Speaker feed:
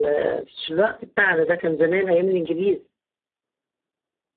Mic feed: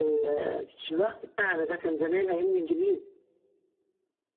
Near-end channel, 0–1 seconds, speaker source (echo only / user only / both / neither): echo only